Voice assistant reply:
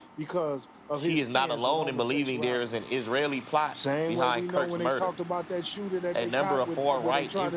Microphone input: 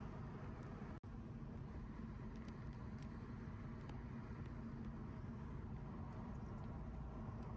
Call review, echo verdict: none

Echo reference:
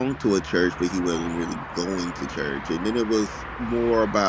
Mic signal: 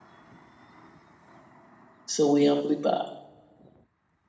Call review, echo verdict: none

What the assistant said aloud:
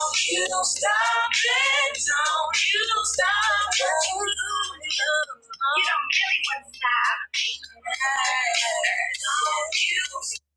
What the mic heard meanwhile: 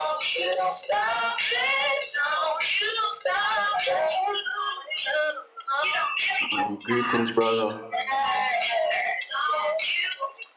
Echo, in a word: present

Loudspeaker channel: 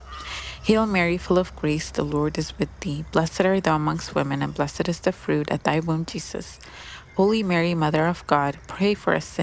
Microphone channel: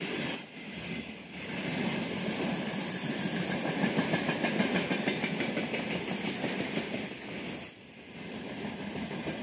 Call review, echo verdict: none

